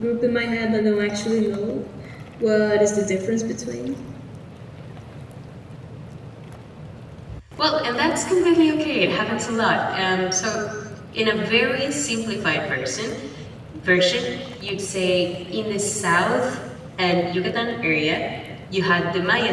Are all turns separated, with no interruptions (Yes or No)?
Yes